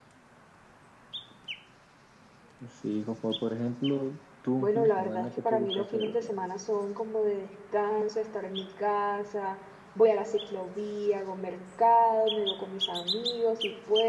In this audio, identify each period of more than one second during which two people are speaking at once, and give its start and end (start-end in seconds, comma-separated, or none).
4.6-6.4